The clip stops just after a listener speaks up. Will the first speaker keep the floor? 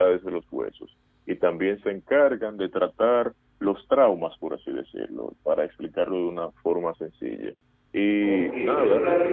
No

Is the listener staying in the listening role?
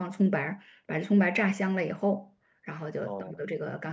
Yes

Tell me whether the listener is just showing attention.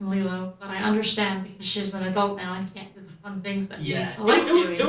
No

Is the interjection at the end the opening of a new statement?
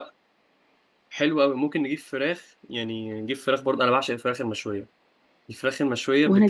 No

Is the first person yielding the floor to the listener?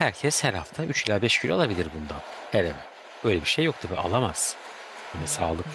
No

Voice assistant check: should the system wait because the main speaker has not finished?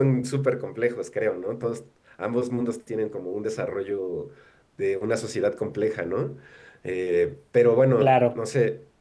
Yes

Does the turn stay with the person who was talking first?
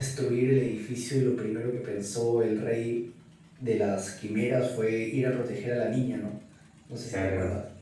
No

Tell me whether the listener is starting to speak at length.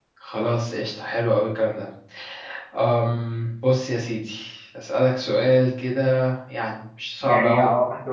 Yes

